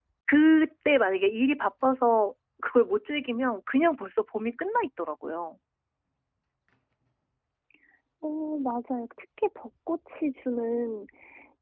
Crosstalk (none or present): none